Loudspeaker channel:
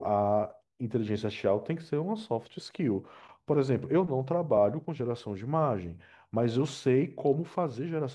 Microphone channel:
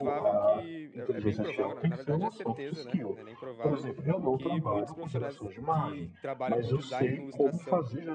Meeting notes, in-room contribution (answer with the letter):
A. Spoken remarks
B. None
A